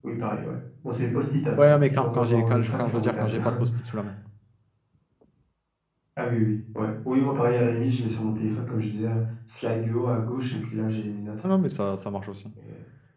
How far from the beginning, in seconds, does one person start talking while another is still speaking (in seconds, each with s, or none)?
1.6 s